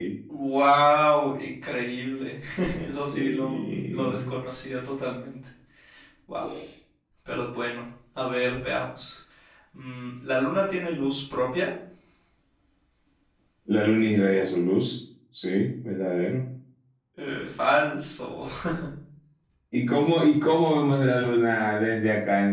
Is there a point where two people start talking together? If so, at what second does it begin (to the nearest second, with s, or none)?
3 s